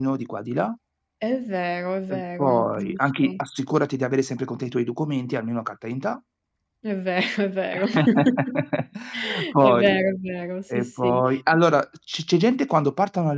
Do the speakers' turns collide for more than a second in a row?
Yes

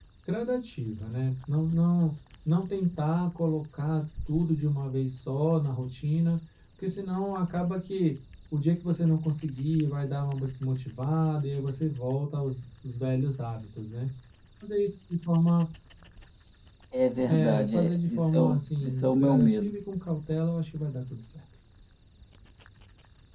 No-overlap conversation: No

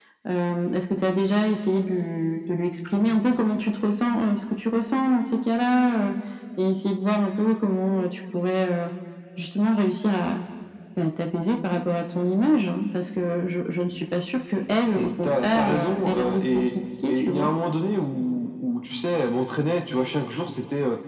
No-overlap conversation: No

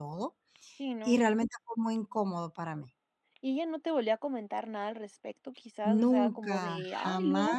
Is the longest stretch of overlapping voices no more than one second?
No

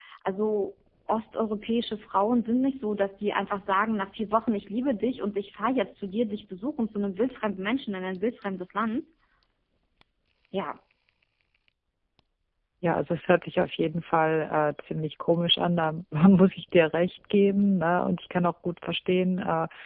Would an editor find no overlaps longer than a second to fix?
Yes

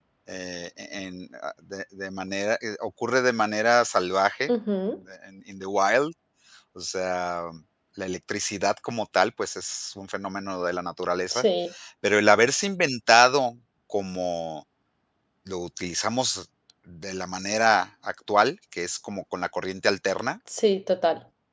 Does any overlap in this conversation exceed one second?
No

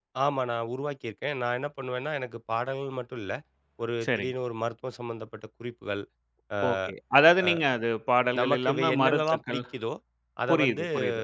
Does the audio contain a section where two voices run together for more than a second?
Yes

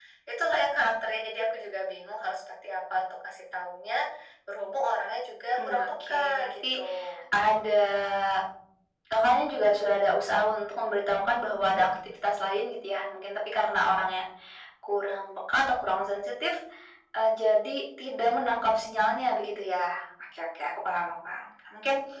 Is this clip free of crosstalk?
No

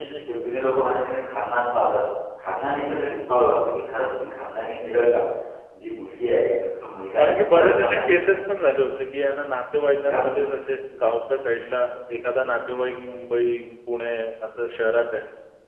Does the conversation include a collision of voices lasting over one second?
Yes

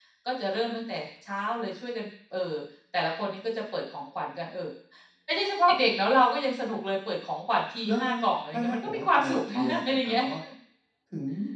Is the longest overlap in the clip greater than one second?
Yes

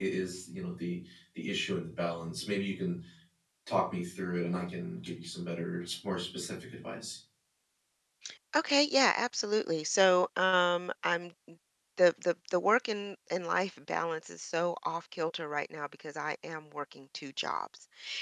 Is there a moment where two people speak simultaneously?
No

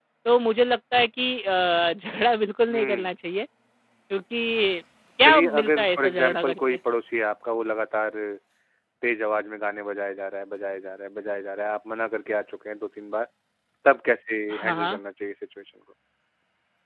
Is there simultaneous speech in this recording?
Yes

